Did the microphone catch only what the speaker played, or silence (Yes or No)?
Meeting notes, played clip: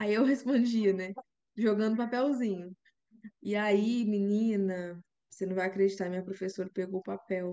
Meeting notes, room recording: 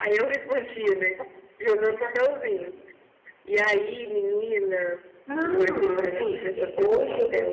No